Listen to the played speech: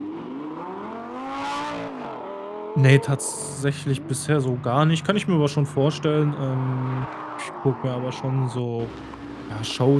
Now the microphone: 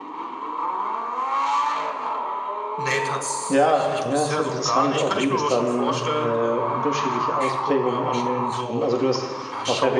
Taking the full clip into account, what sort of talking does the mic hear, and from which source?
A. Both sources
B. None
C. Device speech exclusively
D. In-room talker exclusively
A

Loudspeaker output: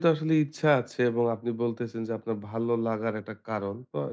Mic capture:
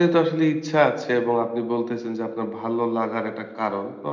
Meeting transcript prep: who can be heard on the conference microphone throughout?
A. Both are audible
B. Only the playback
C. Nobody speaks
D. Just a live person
B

